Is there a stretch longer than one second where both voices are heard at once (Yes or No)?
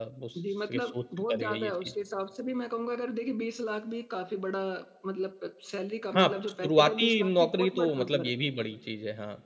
Yes